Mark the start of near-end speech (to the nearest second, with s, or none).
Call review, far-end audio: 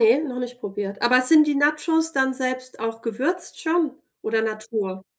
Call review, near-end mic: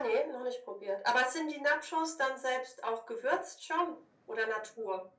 none